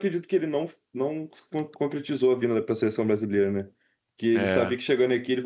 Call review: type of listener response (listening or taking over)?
listening